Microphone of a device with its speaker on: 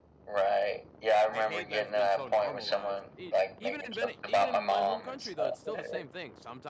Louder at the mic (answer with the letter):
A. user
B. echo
B